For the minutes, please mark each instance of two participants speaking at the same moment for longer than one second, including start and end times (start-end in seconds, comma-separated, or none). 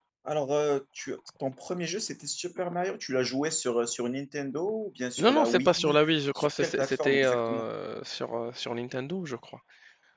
5.2-7.6